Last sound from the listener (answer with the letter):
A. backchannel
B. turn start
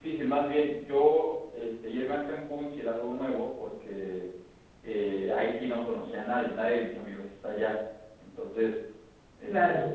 A